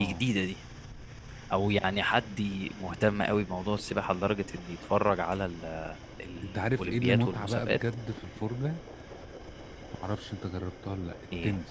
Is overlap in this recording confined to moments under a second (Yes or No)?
No